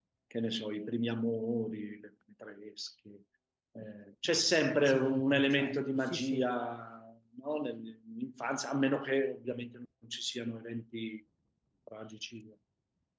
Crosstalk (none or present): present